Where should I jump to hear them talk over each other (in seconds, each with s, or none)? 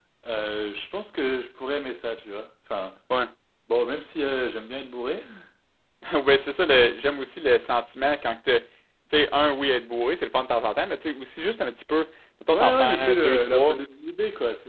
12.5 s